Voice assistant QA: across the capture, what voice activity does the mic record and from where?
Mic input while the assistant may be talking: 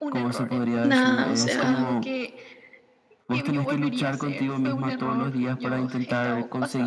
both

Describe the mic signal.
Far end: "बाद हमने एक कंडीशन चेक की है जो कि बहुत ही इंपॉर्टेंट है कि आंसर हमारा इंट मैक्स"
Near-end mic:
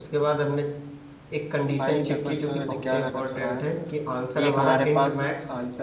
both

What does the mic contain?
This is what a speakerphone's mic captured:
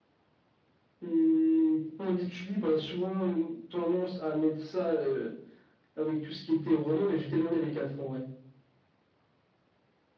echo only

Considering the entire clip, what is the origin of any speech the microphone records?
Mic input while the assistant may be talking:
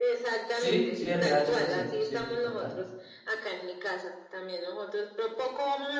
both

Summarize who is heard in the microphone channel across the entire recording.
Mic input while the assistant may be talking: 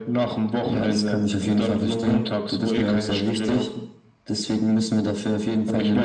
echo only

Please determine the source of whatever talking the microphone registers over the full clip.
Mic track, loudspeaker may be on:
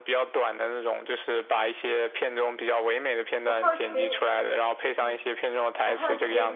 both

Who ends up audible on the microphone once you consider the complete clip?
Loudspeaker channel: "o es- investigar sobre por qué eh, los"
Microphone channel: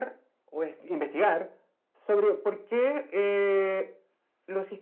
echo only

